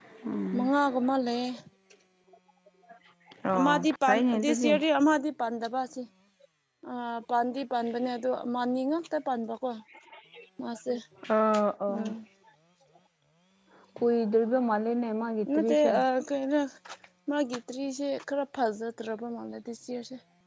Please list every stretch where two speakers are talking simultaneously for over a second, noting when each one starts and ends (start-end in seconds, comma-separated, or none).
3.6-4.8